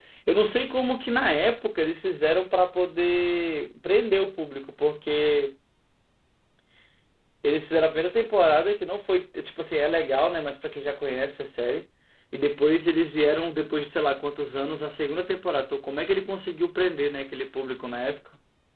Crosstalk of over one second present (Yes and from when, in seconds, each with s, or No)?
No